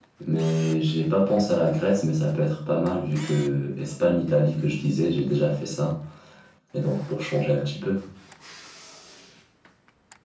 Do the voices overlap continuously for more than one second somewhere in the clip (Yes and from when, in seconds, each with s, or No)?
No